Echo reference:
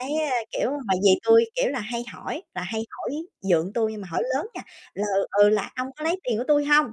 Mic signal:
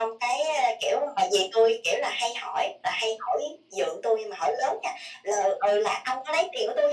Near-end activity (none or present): none